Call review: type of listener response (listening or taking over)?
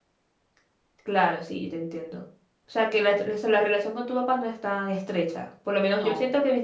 listening